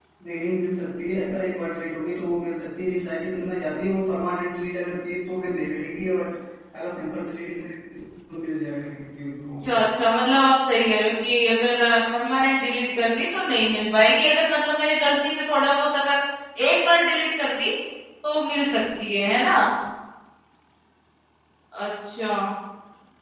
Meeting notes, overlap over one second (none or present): none